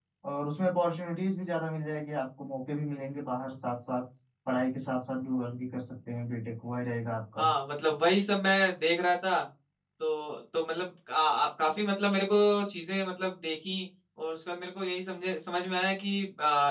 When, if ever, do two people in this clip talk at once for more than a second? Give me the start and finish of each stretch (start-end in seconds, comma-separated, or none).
none